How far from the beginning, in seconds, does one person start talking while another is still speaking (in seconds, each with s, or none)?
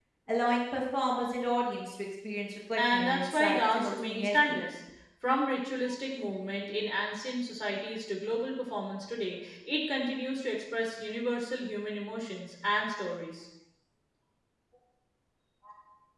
2.8 s